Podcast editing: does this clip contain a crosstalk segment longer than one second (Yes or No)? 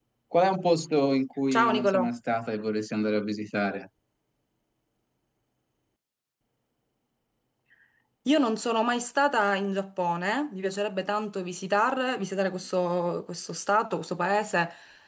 No